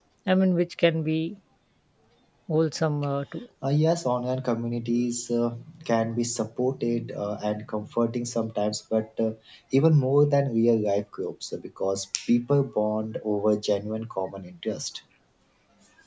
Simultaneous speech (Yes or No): No